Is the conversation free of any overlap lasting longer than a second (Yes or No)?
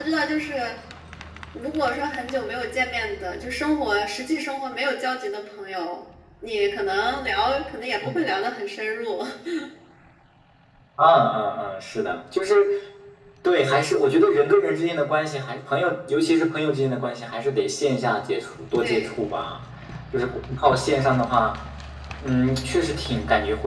Yes